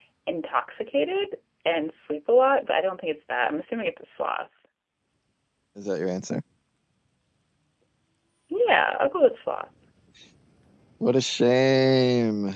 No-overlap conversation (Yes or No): Yes